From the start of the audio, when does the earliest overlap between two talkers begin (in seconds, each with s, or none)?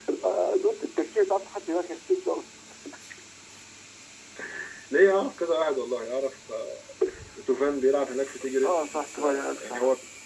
8.6 s